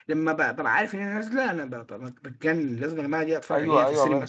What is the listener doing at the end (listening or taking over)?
taking over